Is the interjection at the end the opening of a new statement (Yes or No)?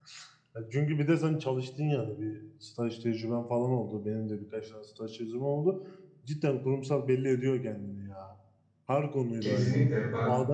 Yes